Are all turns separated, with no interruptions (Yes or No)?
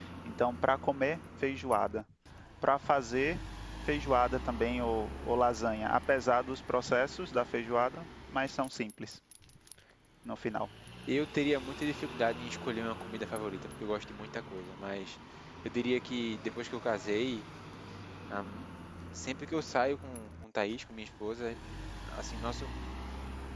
Yes